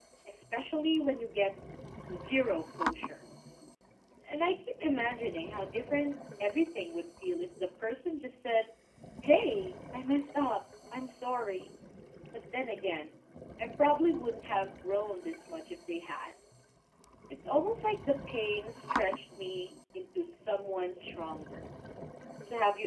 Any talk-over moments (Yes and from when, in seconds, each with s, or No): No